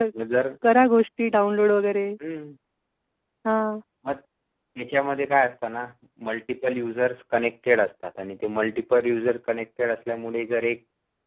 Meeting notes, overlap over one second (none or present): none